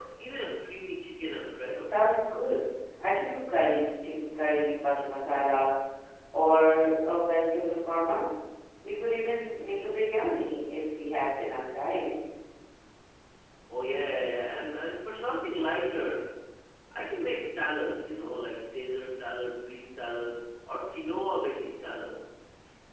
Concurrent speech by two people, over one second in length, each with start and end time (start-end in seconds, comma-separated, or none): none